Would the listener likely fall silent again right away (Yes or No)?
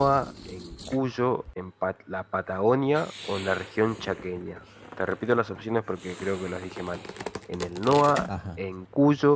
Yes